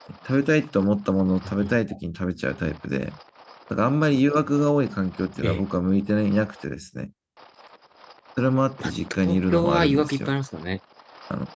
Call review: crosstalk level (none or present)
present